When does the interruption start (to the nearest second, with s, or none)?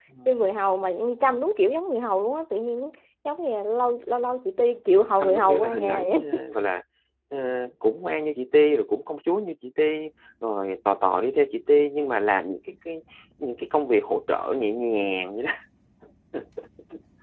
5 s